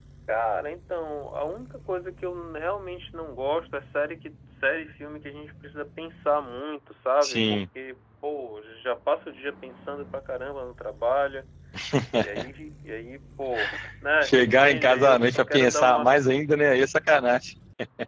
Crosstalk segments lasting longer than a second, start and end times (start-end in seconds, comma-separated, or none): 14.2-16.1